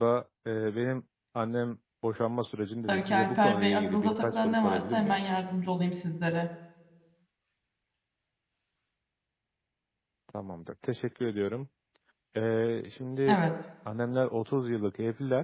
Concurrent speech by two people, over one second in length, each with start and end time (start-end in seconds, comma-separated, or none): 2.9-5.2